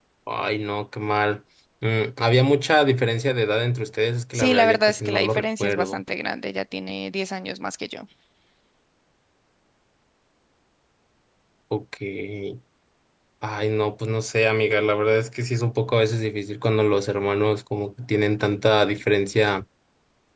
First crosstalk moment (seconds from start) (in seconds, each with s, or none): 4.3 s